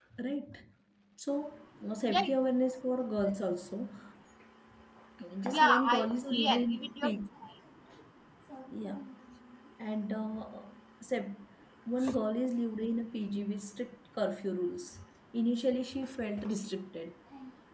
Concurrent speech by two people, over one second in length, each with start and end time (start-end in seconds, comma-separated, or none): 5.5-7.1